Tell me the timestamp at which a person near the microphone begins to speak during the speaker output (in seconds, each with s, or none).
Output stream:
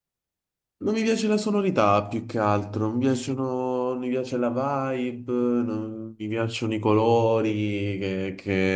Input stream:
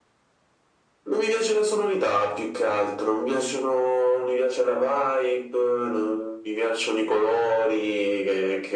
none